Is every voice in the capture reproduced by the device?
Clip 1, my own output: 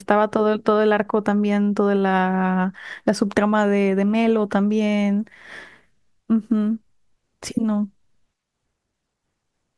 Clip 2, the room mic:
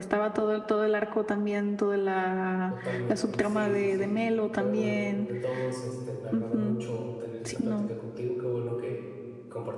No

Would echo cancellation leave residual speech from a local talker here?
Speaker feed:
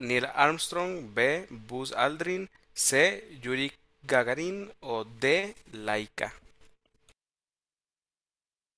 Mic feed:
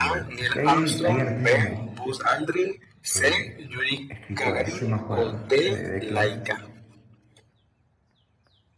Yes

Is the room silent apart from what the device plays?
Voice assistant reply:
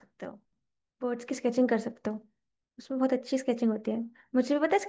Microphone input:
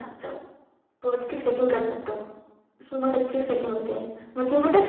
Yes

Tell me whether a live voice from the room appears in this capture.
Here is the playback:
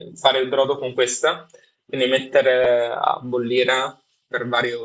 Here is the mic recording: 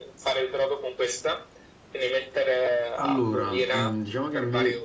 Yes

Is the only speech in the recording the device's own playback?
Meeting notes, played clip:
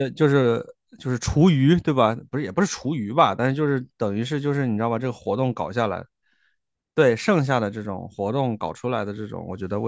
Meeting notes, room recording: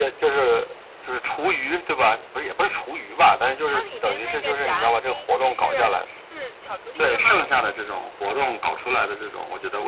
No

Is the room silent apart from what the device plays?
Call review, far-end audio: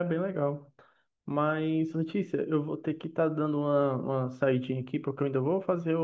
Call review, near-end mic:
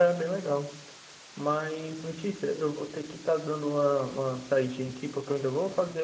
Yes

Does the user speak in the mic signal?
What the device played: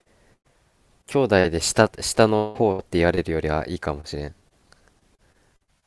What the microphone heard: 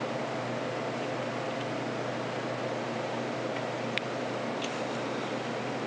No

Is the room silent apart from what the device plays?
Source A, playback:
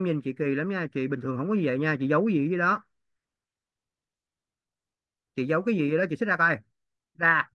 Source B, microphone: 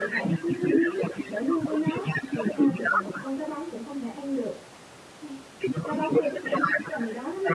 No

